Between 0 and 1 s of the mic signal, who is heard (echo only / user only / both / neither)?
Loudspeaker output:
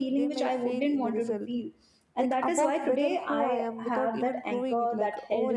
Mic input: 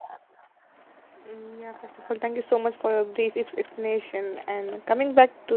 neither